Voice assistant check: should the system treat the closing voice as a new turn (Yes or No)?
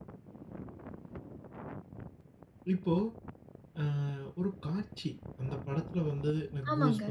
No